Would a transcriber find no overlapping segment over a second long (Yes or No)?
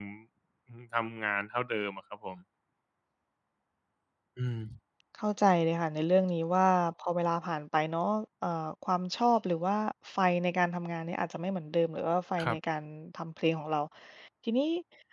Yes